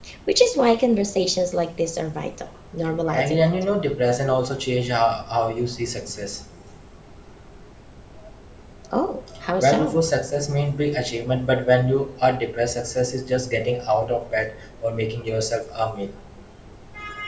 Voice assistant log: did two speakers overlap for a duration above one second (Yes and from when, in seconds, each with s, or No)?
No